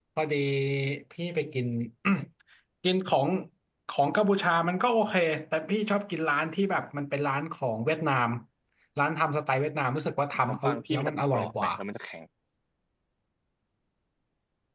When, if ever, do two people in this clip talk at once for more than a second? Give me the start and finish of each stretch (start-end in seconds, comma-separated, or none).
10.4-11.7